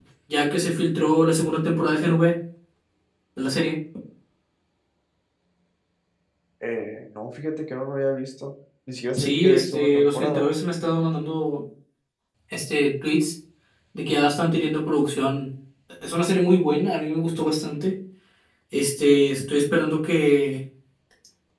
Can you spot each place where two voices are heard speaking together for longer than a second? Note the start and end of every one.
9.2-10.5

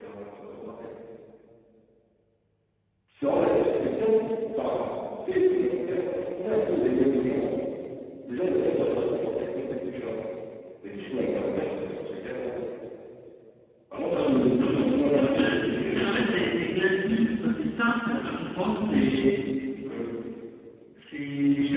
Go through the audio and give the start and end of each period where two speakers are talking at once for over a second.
14.1-15.5

